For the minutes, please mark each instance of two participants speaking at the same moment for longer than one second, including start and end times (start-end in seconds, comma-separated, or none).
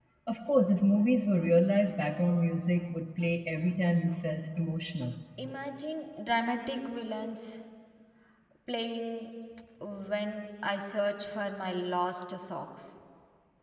none